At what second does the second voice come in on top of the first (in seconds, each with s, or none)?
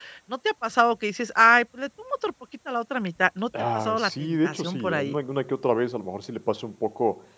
3.5 s